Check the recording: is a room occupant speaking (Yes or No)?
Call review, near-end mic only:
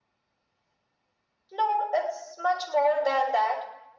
No